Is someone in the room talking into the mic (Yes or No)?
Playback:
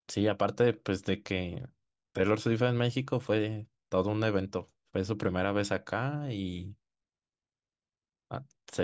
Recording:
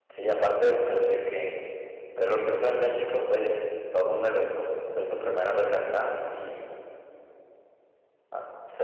No